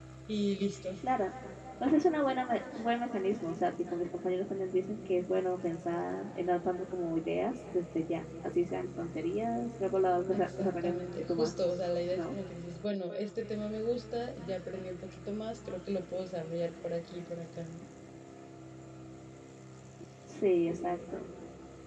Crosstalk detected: Yes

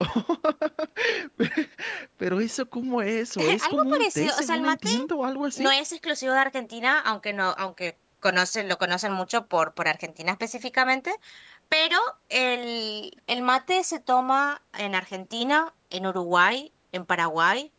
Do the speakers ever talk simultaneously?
Yes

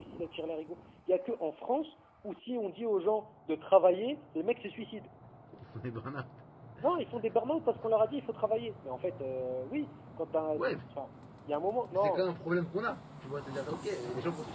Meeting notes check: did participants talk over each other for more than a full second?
No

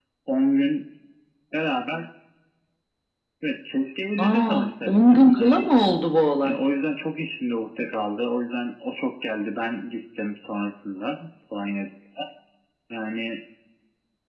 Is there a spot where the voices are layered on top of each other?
Yes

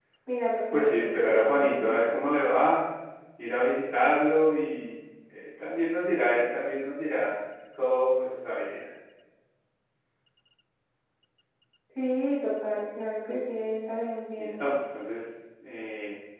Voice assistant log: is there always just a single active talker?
No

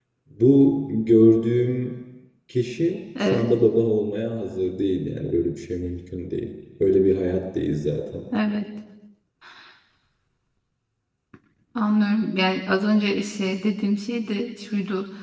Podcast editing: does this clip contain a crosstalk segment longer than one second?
No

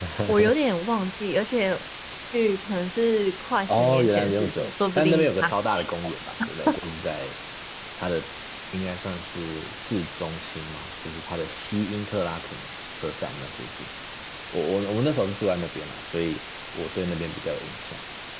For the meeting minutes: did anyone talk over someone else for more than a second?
Yes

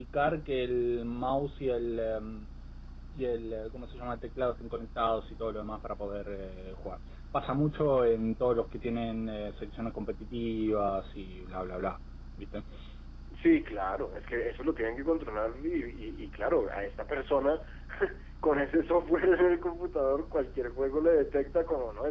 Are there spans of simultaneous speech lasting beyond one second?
No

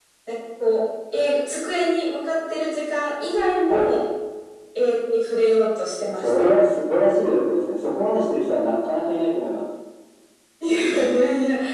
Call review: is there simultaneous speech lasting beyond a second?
No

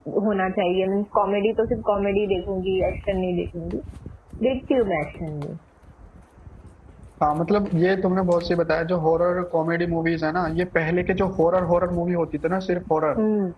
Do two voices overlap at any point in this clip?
No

